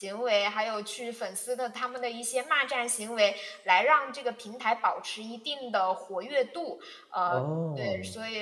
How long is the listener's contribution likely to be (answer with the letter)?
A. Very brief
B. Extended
A